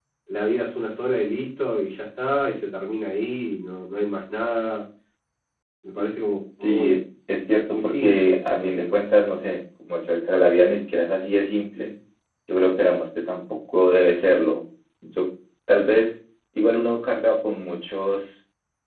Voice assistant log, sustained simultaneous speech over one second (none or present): present